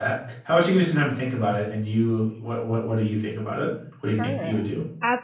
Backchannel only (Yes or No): No